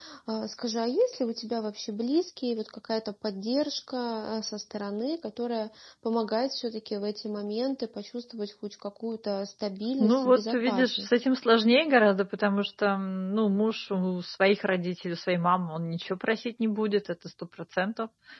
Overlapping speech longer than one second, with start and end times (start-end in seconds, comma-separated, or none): 10.0-11.2